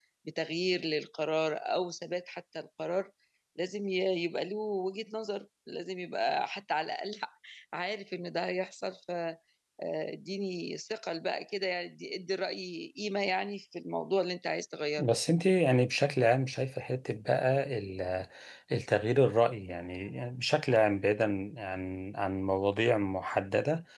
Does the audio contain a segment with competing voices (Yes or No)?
No